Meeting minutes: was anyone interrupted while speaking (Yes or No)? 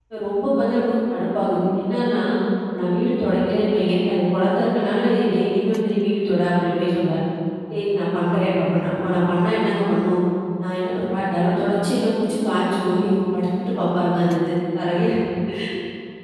No